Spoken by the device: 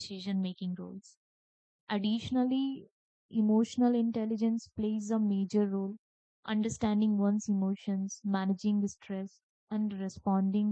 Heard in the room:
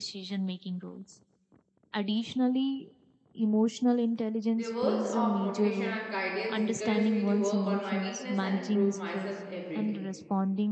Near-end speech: present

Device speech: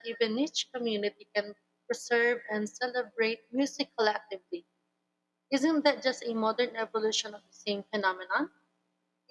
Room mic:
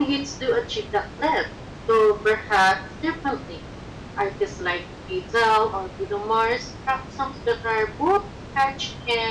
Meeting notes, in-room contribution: present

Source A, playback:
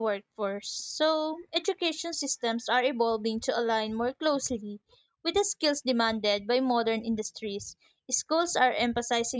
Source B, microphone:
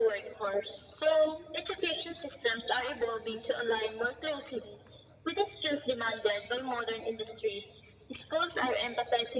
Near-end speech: none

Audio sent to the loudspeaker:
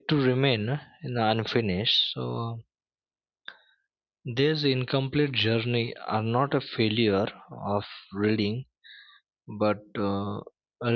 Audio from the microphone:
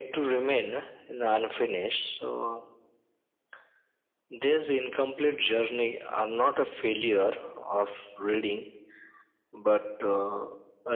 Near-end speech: none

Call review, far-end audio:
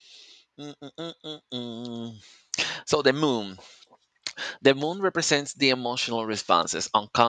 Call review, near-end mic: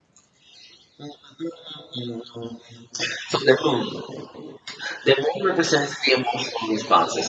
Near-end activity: none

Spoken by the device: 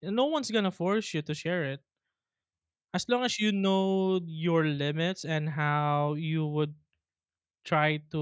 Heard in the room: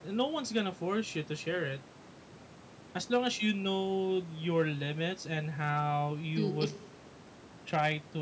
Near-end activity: present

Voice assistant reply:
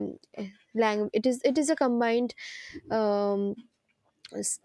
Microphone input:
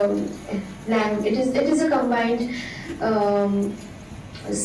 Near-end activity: none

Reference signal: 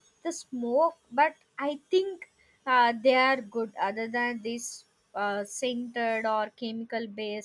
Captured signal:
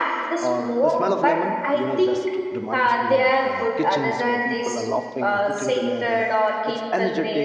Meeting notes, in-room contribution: present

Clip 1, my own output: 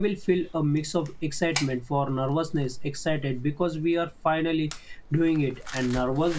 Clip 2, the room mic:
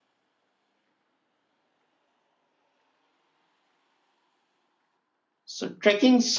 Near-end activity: present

